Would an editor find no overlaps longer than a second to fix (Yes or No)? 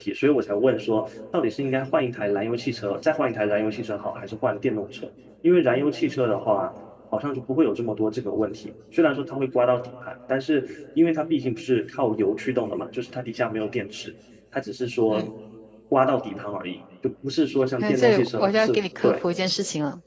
No